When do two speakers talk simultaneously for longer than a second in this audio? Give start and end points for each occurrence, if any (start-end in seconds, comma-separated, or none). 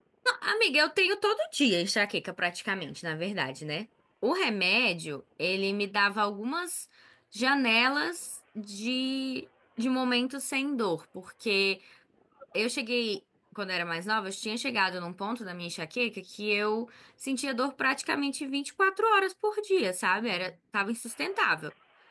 none